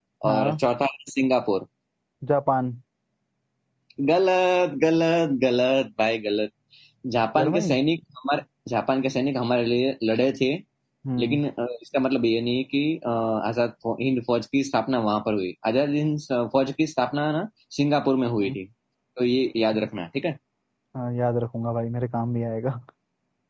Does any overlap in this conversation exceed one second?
No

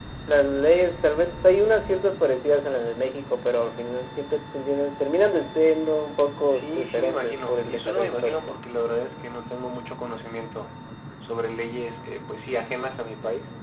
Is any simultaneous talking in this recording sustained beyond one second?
Yes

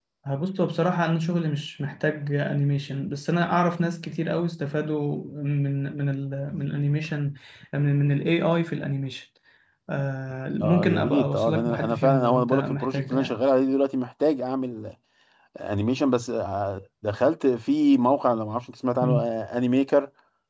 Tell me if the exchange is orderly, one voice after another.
No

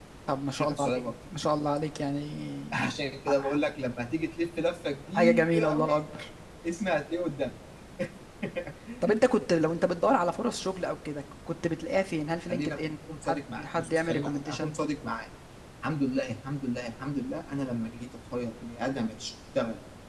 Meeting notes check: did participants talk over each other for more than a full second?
Yes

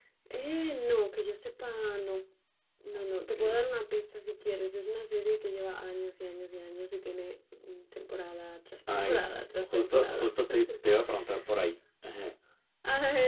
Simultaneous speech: Yes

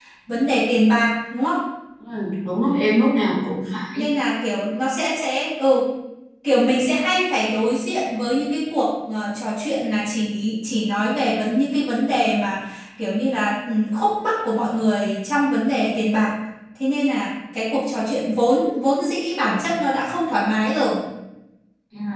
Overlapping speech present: No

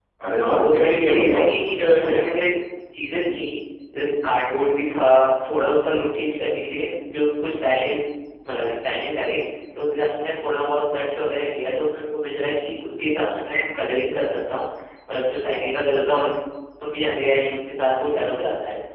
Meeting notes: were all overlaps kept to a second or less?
No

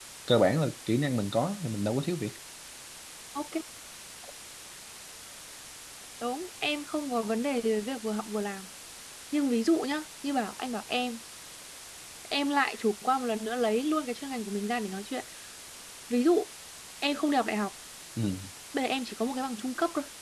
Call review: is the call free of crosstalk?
Yes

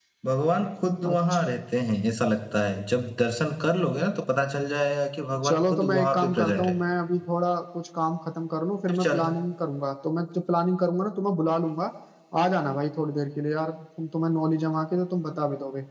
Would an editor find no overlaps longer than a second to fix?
No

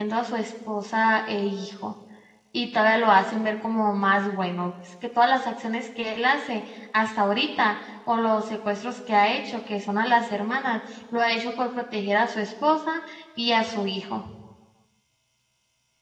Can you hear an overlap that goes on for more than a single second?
No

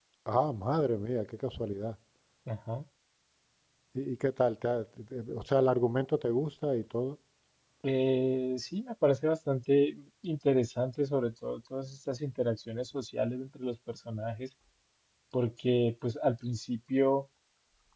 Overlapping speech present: No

